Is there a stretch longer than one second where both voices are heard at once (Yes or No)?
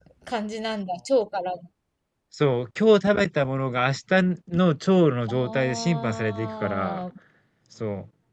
Yes